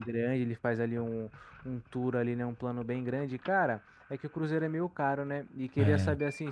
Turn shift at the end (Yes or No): No